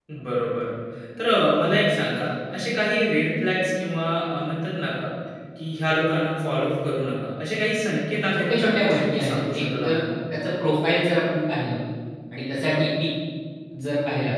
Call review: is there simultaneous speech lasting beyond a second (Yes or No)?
Yes